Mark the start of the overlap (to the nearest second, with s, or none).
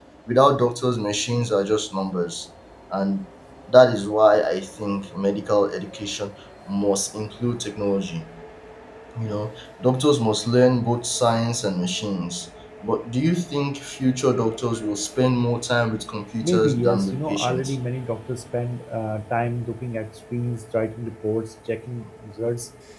16 s